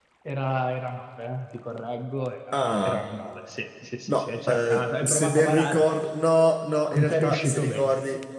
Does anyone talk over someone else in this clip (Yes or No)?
Yes